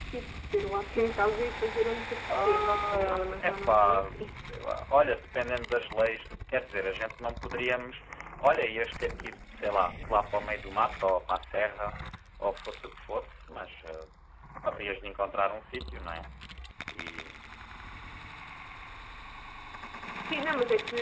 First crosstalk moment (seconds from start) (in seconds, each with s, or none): 2.3 s